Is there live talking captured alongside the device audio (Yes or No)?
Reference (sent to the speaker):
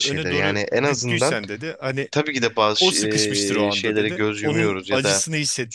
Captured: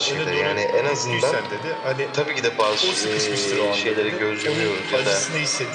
No